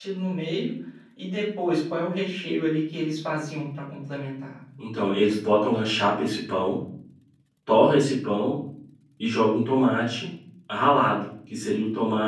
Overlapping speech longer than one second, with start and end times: none

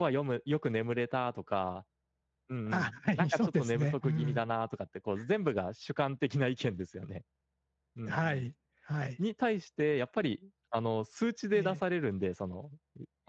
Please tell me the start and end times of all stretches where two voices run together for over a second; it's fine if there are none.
2.7-4.4

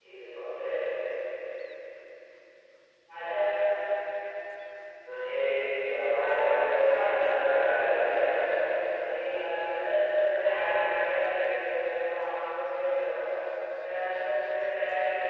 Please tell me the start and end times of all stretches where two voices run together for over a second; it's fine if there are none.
6.8-8.4

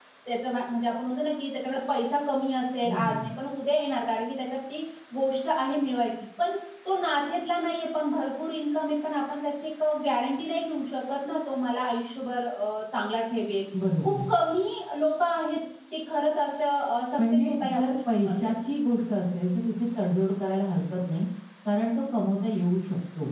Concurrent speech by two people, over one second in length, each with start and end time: 17.2-18.5

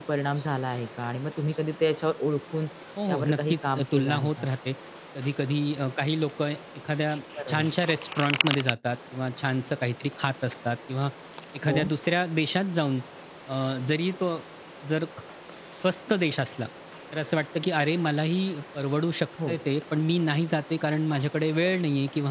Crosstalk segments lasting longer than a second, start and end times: 3.1-4.5

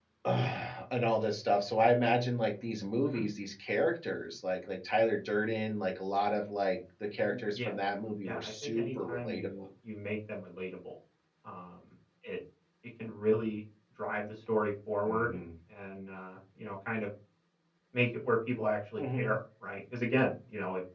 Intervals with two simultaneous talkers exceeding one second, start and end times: 8.2-9.6

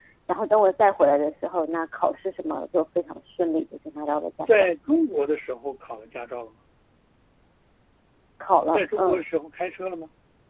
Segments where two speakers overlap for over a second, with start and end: none

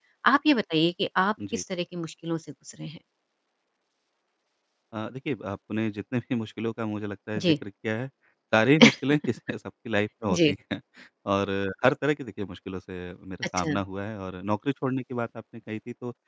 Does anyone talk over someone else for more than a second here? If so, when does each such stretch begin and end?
none

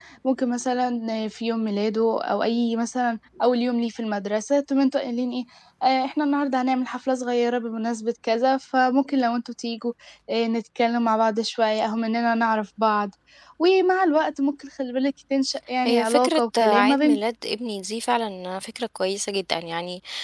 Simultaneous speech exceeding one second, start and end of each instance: 15.8-17.2

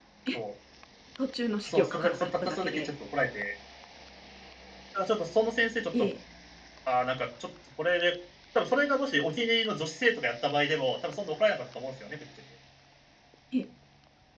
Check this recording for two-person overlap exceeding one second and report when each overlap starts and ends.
1.7-2.9

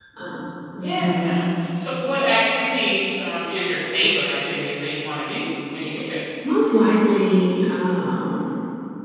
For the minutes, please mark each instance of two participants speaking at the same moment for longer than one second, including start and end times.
none

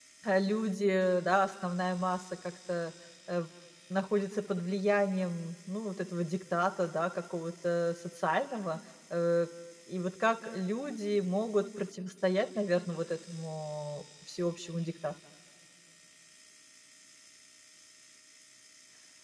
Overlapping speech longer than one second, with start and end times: none

